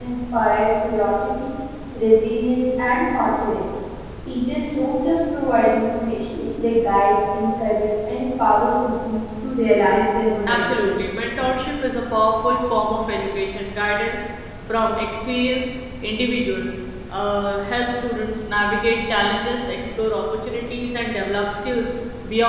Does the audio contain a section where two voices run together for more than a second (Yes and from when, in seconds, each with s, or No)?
No